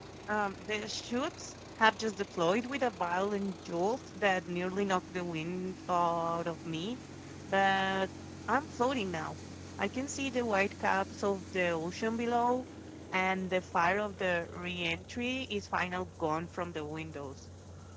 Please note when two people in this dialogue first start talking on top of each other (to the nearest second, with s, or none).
none